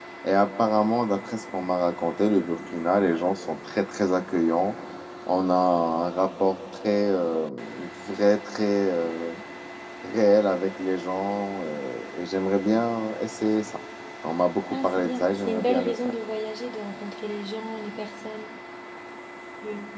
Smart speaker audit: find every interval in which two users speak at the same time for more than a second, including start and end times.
14.7-15.9

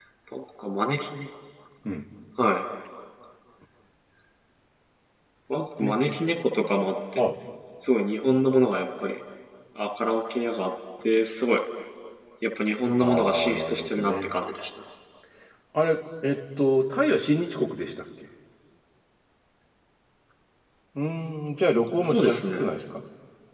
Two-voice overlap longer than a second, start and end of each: 13.0-14.3

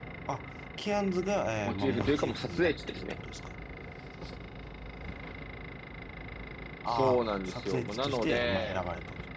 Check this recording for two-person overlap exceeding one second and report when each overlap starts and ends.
1.6-3.1, 6.9-8.8

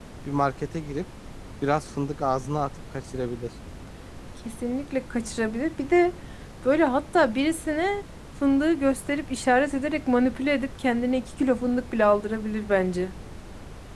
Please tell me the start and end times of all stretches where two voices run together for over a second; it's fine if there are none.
none

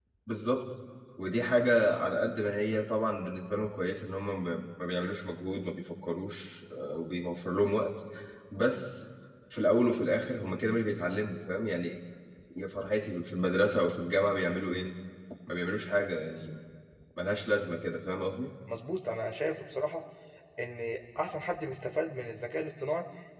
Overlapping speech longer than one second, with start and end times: none

